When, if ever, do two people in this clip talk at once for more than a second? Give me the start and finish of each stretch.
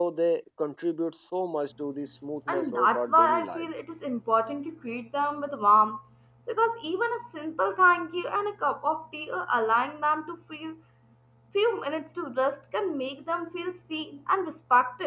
2.5-3.7

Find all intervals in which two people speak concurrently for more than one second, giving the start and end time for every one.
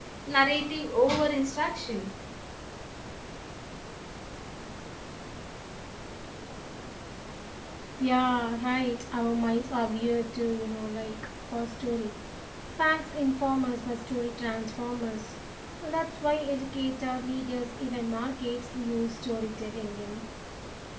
none

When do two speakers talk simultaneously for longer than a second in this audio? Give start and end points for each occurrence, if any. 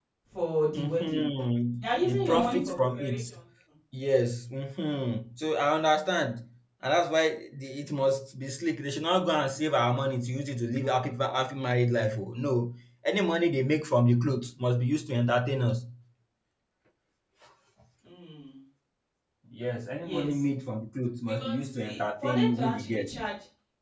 1.8-3.2, 21.3-23.1

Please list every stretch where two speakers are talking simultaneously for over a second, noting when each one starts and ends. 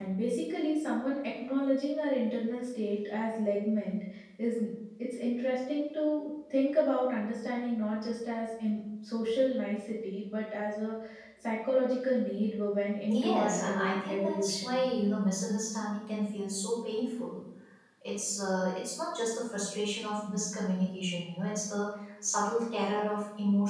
13.1-14.8

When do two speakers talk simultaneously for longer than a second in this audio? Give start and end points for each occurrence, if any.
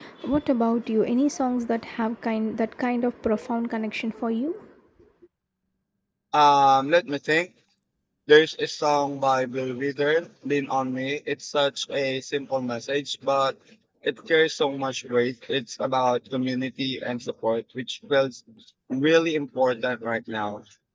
none

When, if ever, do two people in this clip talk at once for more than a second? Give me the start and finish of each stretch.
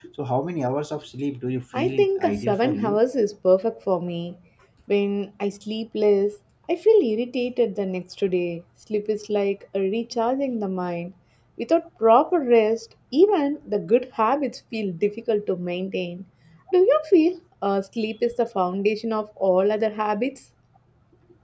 1.8-3.0

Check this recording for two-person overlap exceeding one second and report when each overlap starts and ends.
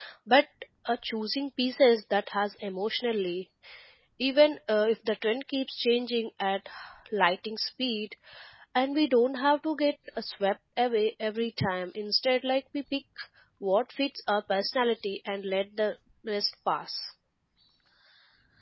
none

